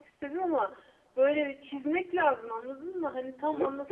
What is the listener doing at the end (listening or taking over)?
taking over